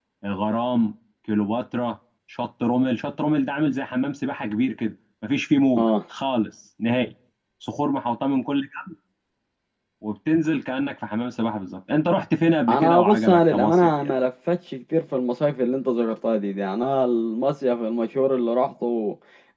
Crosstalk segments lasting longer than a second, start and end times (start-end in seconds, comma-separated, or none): 12.7-14.1